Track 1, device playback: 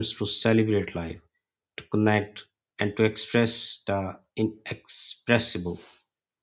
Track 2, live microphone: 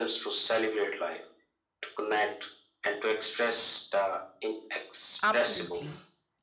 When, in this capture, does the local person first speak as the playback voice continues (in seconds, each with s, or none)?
5.2 s